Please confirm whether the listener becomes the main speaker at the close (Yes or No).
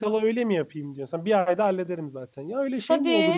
Yes